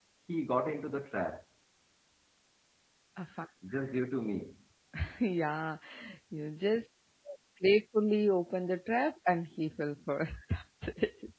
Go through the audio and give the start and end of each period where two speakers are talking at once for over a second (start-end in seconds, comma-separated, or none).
none